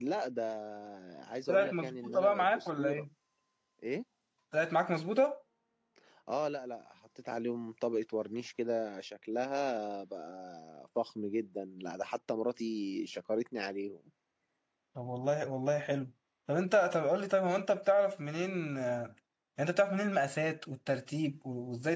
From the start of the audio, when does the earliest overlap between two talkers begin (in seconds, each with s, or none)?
1.5 s